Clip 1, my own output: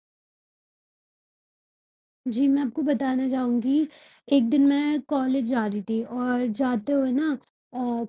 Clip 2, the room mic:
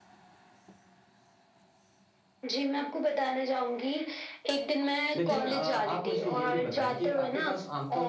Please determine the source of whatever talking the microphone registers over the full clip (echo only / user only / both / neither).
both